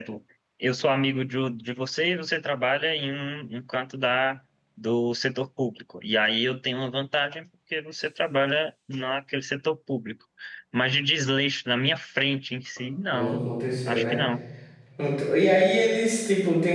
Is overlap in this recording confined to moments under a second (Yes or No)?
Yes